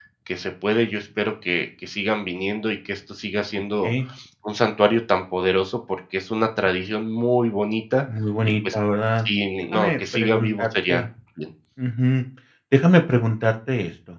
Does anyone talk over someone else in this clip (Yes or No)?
Yes